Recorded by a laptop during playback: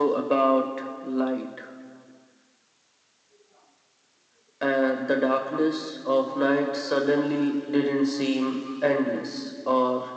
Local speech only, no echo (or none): none